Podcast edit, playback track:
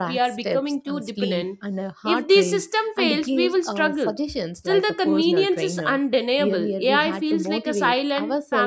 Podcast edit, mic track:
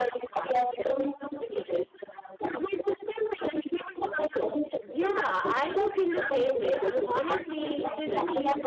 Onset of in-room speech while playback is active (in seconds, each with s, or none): 4.8 s